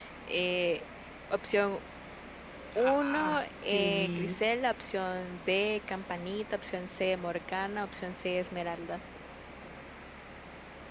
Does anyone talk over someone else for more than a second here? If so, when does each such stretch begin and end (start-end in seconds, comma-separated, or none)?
2.8-4.5